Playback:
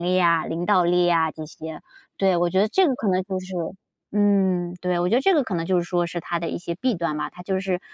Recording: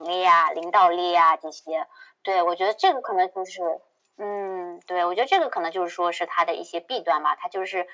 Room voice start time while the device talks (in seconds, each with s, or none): none